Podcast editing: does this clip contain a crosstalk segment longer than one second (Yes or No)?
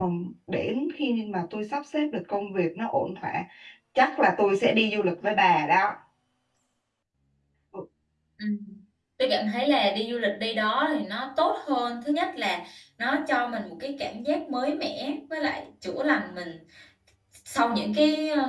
No